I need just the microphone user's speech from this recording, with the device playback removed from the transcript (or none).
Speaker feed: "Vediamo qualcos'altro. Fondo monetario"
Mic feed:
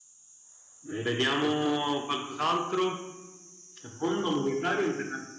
Eh, aspetta.